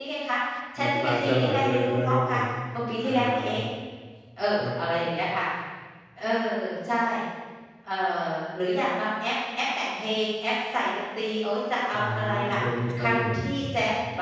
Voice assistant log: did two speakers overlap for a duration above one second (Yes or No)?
Yes